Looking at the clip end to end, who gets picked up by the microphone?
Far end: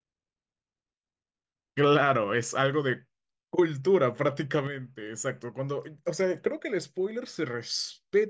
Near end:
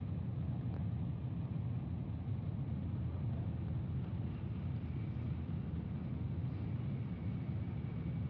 neither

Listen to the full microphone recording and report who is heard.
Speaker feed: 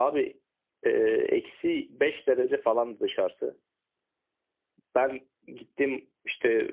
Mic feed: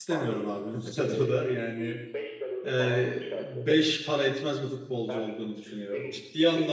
both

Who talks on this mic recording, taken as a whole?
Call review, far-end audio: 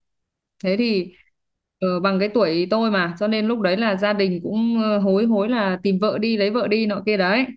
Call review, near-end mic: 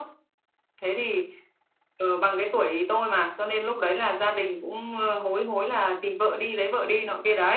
echo only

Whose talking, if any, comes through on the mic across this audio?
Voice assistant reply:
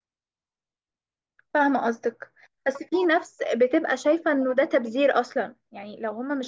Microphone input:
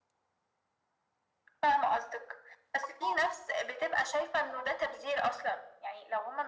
echo only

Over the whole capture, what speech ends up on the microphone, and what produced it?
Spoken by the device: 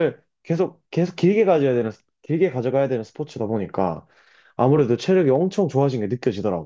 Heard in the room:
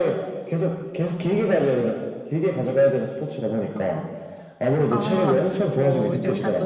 both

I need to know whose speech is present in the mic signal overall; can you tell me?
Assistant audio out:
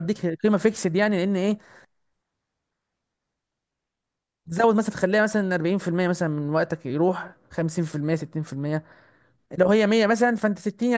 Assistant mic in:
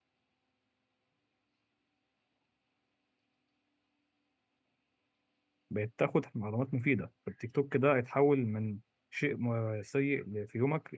user only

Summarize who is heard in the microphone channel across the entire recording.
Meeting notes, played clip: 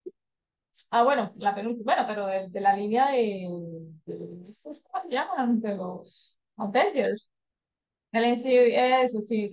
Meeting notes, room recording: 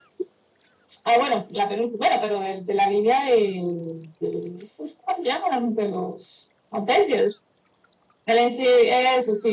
echo only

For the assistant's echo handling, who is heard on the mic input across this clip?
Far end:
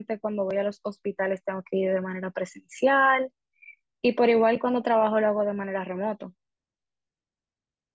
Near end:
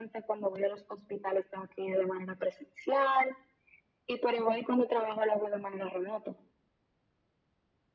echo only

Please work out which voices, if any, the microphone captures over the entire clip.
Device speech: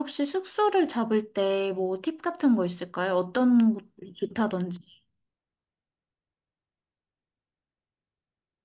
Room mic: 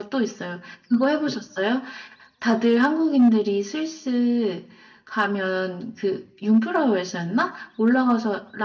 user only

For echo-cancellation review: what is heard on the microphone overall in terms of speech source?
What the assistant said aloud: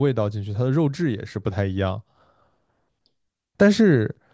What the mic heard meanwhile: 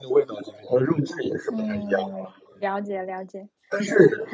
both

